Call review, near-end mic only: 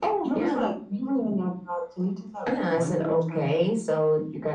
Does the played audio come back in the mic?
Yes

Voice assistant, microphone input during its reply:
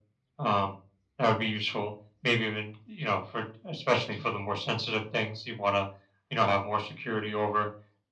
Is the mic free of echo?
No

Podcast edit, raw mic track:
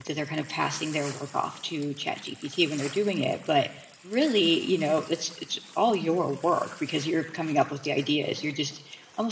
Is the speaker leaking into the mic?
No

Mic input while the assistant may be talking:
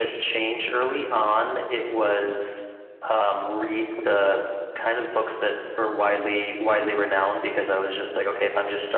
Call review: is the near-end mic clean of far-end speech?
No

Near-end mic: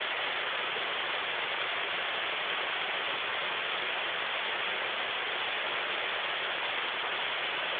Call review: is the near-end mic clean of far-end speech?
Yes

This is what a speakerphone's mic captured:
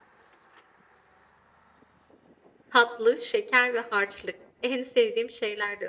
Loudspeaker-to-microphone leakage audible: No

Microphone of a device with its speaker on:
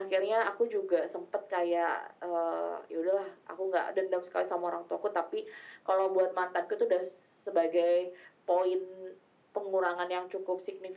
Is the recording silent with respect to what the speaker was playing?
No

